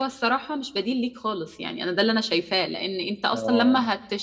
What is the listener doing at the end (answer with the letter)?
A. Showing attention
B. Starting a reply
A